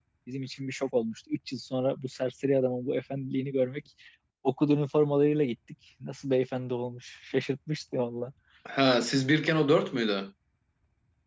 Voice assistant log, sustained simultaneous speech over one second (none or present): none